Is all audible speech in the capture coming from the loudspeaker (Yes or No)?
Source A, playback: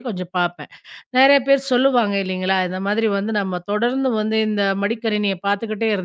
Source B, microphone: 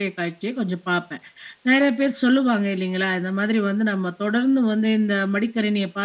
Yes